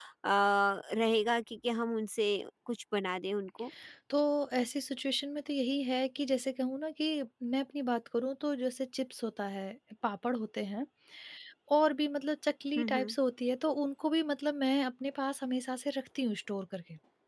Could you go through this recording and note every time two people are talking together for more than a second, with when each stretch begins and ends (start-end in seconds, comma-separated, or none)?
none